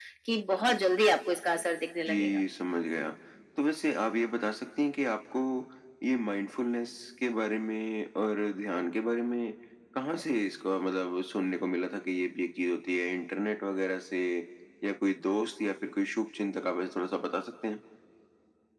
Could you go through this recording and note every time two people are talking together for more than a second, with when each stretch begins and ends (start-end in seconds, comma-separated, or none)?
none